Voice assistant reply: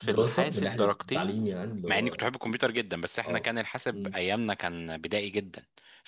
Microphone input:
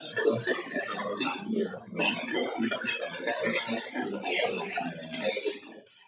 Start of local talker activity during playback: 4.4 s

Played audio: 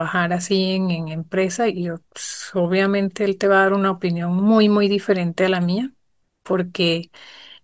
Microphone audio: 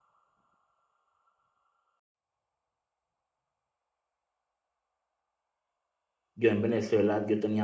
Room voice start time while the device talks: 6.3 s

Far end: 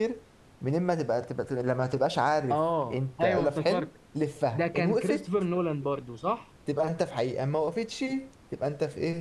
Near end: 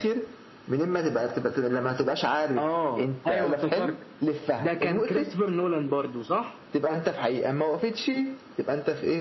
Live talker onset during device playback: none

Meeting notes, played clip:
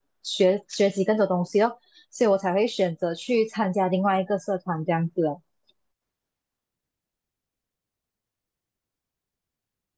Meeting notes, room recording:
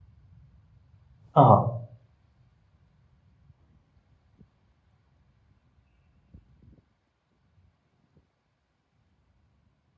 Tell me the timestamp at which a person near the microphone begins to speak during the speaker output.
1.3 s

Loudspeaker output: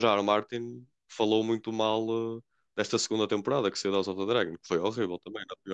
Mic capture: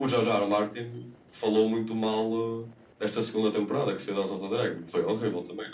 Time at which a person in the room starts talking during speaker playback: none

